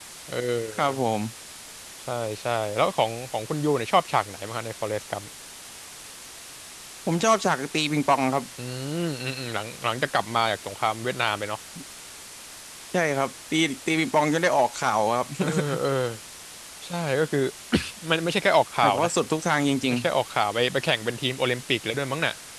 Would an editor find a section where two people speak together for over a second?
No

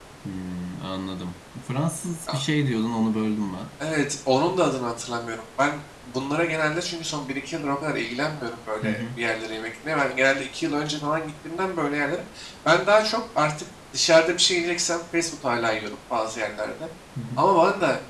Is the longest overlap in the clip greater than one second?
No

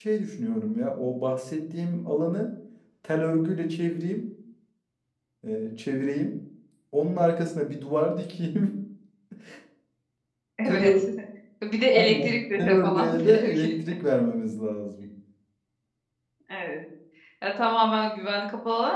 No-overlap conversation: No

